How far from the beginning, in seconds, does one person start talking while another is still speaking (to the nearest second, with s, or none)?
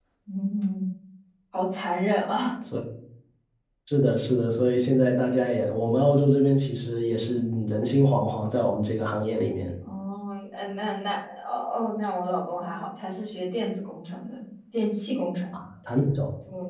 none